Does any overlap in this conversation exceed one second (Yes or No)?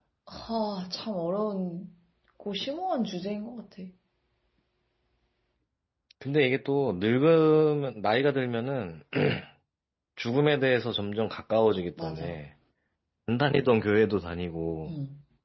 No